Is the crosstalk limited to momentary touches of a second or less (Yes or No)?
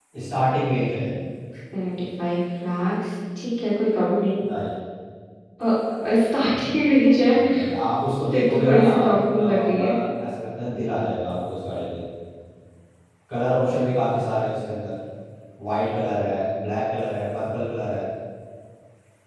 No